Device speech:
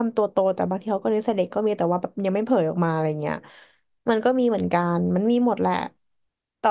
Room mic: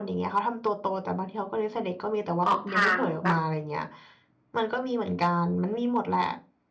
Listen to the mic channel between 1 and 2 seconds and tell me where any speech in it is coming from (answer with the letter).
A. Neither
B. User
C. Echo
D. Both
C